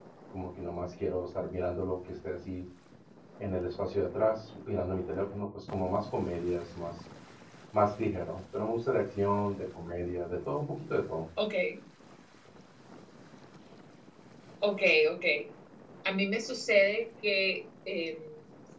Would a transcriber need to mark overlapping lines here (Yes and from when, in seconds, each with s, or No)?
No